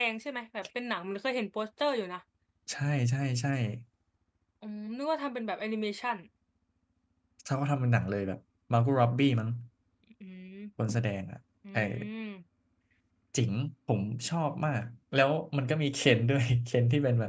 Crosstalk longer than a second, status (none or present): none